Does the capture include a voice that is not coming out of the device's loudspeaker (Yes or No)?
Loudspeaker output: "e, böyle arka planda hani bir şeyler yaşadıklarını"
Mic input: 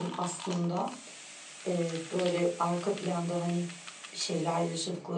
No